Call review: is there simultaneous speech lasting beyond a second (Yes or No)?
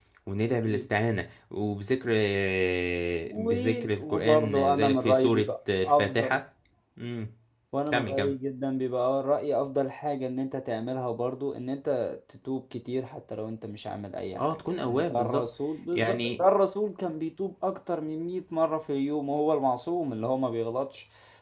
Yes